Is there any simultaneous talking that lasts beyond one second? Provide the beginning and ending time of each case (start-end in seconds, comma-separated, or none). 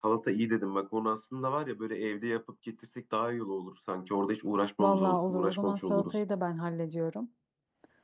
4.8-6.2